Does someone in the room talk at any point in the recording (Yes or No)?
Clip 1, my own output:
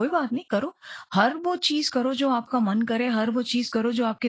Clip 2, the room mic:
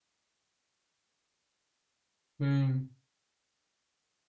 Yes